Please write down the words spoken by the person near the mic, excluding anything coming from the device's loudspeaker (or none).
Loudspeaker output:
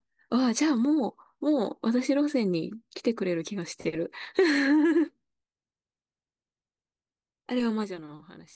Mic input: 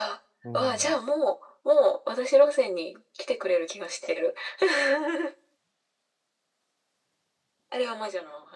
うん。